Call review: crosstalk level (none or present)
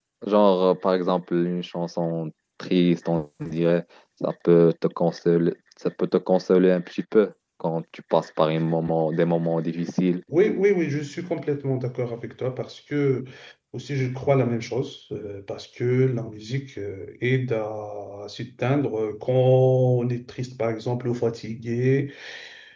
none